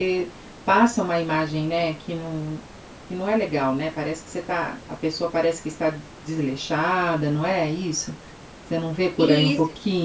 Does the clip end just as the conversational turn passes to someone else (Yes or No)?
Yes